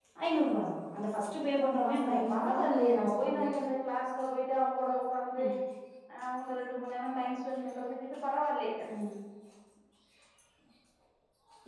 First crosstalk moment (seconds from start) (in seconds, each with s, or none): 1.6 s